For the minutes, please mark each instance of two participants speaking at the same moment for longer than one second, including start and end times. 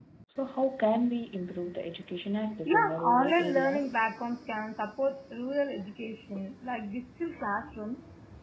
2.6-4.0

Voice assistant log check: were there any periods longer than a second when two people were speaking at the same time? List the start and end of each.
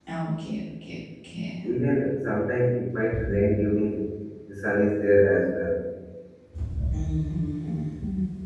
none

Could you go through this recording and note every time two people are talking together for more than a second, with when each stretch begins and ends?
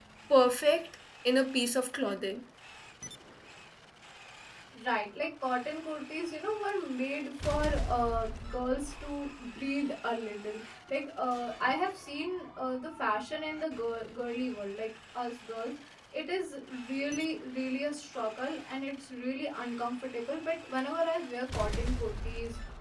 none

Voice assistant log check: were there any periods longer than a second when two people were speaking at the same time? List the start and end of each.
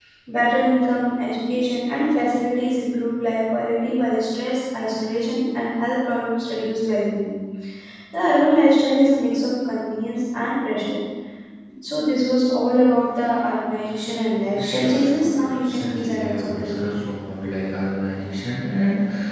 14.6-16.9

